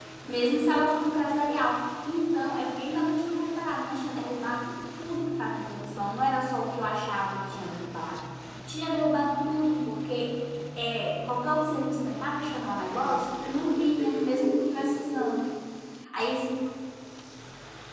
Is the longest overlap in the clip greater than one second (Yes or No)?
Yes